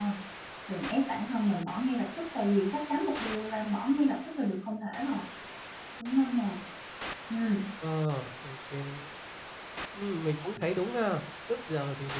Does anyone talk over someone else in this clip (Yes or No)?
No